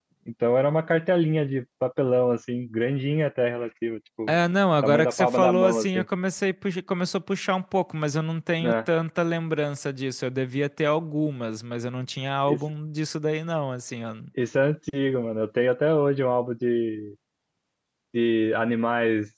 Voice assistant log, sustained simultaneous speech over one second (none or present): present